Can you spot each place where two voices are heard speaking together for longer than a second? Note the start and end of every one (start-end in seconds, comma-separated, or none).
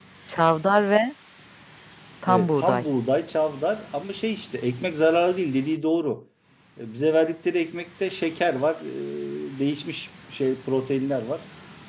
none